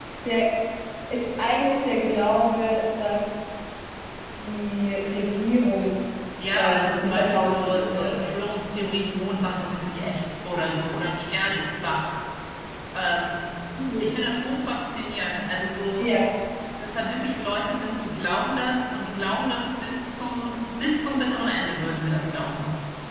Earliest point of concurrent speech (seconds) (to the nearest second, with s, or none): 7 s